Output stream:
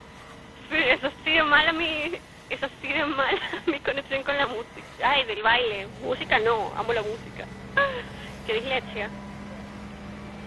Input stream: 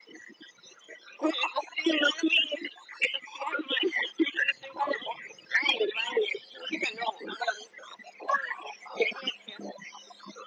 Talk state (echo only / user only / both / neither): echo only